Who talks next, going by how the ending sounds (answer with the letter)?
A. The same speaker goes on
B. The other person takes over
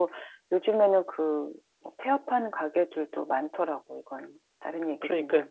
B